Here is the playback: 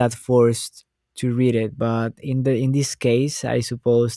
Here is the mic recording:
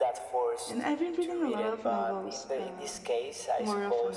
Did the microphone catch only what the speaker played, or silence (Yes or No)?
No